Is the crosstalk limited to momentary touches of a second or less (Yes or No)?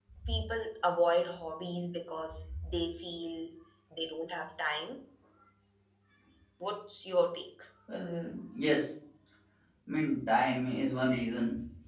Yes